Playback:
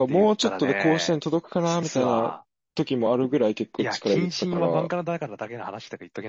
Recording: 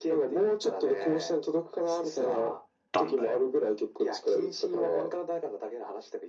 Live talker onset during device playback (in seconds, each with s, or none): 2.9 s